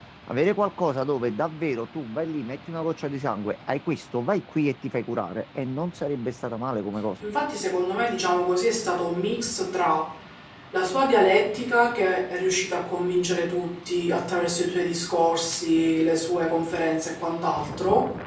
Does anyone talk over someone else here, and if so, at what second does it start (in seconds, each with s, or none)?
none